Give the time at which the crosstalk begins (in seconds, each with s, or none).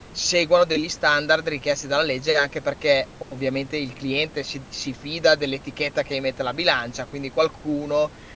none